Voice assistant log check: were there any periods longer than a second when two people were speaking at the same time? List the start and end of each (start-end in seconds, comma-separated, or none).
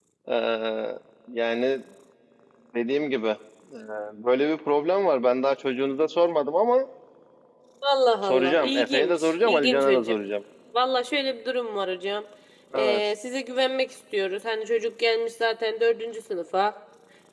8.2-10.2